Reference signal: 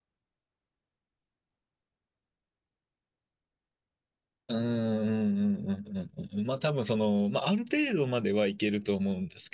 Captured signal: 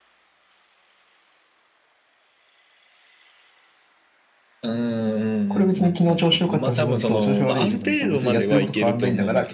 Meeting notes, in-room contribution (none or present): present